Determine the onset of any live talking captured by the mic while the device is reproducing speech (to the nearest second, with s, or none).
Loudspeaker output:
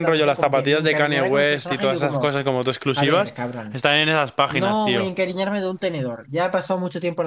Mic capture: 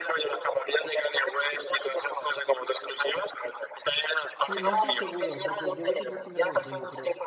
4 s